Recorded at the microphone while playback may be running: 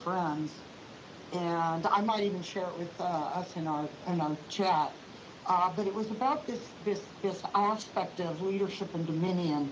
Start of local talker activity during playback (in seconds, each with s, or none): none